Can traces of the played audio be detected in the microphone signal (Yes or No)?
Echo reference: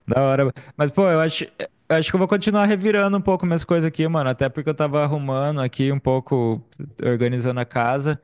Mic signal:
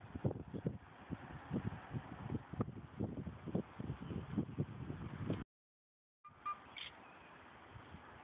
No